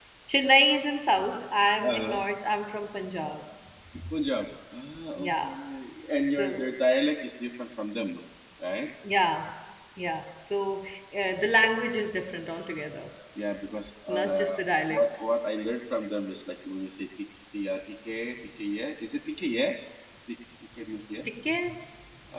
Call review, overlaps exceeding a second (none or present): none